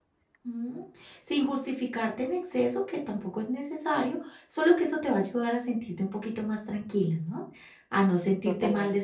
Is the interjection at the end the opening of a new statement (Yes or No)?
No